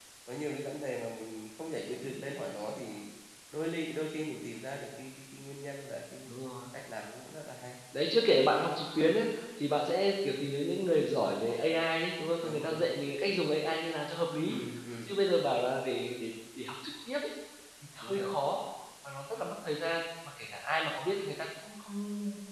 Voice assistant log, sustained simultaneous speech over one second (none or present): none